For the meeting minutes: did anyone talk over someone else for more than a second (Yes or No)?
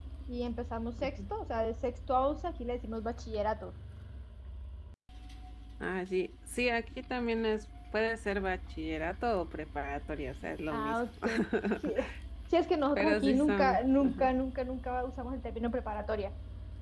Yes